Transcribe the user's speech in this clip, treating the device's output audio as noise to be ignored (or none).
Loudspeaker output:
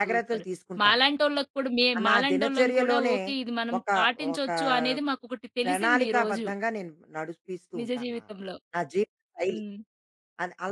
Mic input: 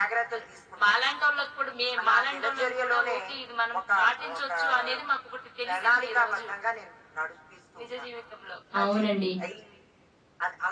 అవునండి.